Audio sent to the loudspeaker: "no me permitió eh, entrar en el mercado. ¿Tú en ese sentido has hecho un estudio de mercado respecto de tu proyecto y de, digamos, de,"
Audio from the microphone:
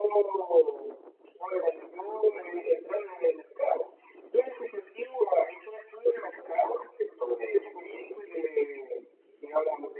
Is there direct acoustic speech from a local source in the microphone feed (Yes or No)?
No